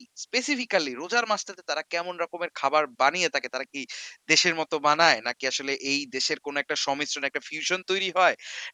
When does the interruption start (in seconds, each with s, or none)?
none